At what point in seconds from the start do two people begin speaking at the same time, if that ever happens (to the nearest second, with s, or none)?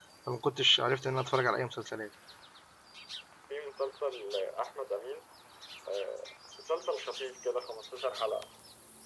none